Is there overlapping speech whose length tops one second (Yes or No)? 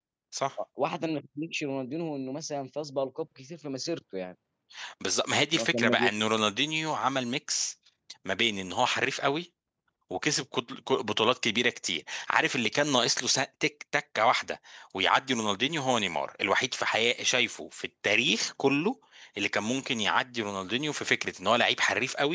No